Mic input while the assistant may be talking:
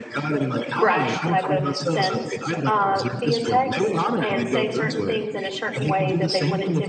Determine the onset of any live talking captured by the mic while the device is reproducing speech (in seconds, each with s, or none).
0.8 s